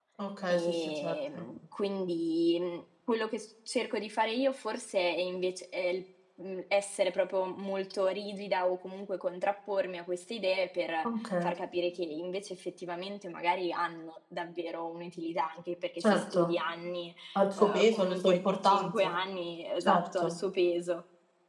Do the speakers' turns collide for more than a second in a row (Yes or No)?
Yes